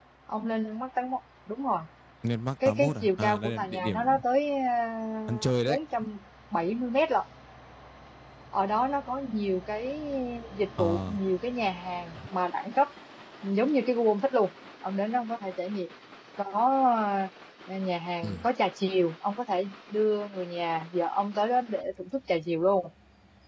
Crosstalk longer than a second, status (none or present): present